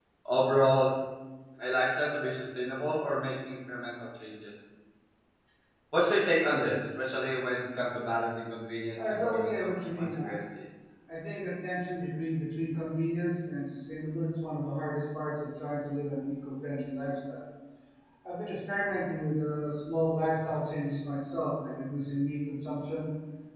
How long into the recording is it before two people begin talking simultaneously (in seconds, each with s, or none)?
8.9 s